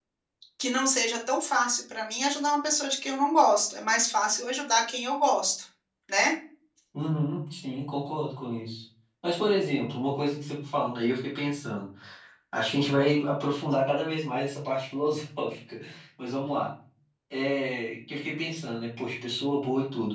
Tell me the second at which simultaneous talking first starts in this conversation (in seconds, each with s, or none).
none